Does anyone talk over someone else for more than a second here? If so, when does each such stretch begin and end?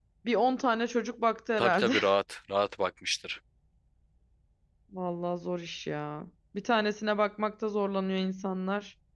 none

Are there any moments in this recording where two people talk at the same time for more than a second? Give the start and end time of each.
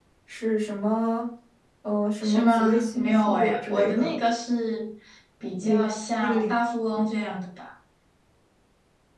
2.2-4.2

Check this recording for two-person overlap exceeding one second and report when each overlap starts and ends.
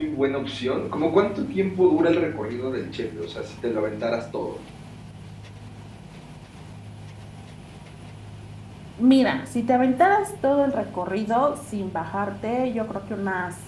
none

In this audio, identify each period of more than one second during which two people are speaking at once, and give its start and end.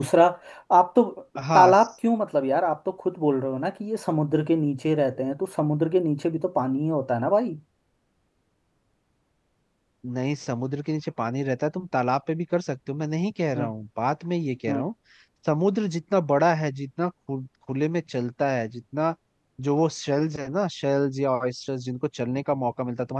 none

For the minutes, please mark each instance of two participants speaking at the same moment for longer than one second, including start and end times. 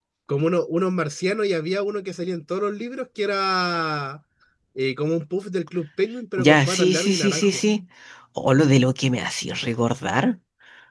6.4-7.6

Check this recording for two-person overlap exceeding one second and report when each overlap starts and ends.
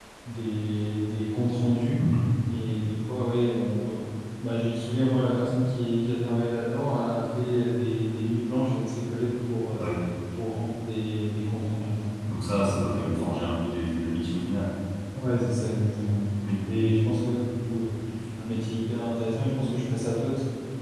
none

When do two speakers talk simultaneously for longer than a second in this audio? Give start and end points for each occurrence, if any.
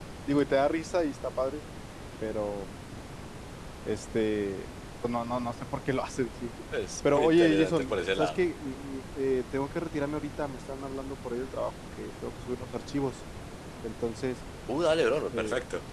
7.1-8.4

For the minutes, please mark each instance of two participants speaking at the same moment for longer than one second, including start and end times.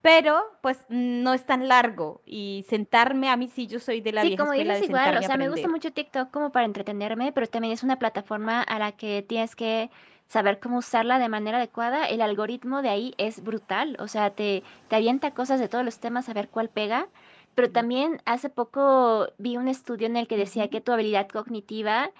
4.2-5.7

